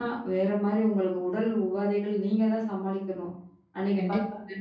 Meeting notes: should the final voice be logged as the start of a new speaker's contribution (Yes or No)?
Yes